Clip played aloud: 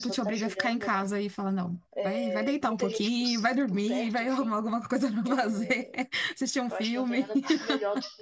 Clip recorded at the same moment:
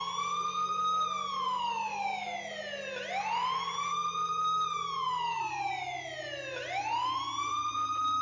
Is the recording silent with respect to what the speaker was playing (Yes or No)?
Yes